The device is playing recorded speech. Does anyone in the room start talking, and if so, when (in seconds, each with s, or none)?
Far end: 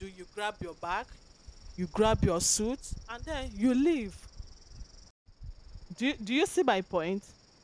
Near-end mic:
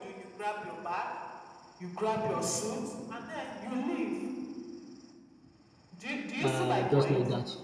6.4 s